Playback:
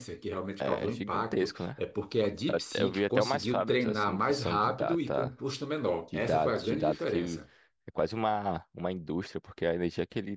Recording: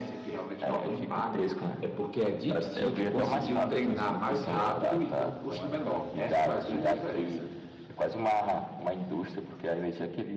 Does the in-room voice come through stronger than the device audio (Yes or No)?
No